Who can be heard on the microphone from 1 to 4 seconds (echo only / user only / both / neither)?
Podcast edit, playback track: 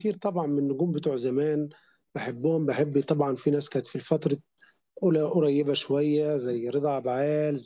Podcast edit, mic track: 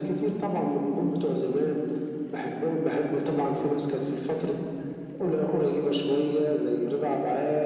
echo only